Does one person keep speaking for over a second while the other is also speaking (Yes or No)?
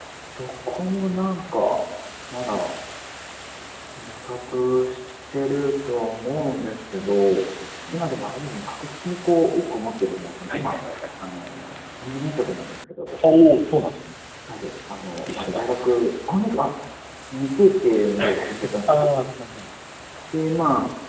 No